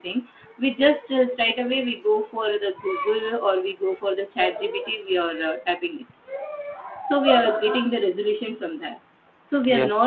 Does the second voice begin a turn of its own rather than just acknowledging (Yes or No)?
No